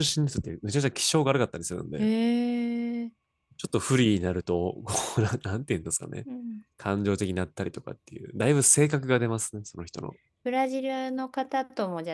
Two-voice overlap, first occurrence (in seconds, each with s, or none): none